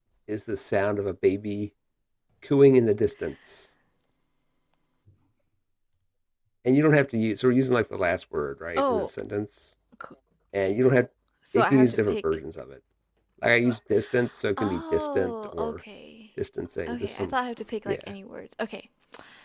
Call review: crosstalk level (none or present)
present